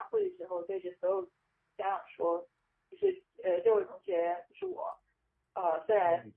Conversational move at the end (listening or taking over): listening